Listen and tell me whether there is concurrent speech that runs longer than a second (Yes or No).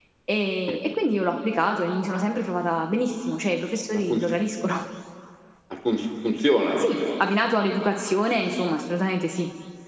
No